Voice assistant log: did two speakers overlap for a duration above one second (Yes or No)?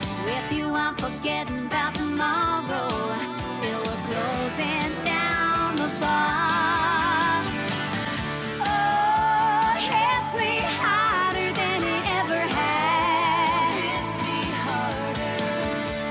No